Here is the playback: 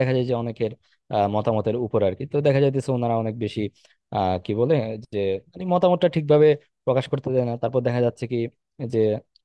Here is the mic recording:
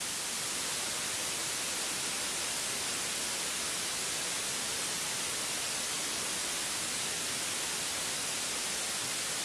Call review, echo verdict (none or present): none